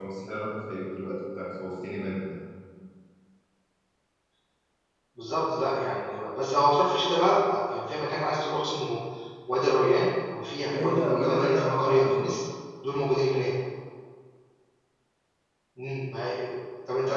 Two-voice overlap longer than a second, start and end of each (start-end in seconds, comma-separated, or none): 10.7-12.2